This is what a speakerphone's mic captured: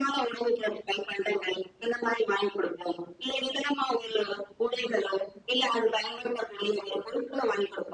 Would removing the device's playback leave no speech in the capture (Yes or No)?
Yes